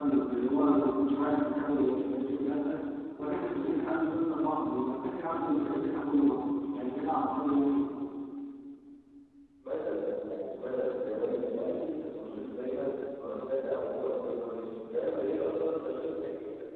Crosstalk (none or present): none